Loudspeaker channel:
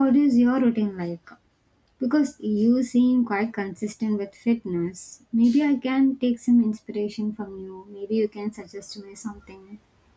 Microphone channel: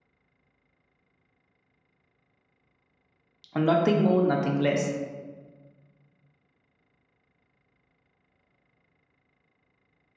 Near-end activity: present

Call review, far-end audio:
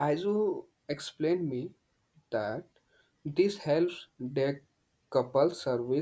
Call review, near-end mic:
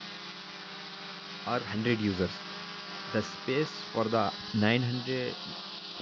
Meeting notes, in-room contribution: present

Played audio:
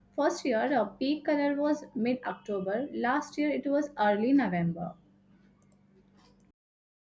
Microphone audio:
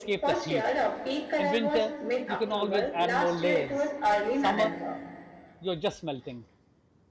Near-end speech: present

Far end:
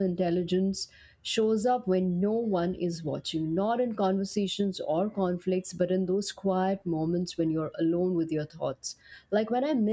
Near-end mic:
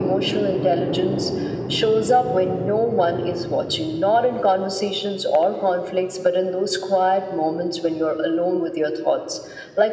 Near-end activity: none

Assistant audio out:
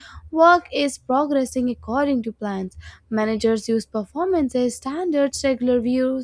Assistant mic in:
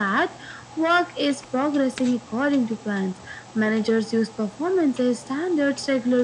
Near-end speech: none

